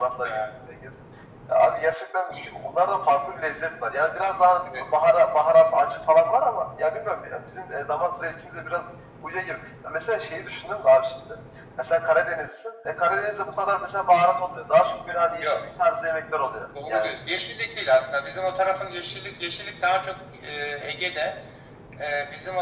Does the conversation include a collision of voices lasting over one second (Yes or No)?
No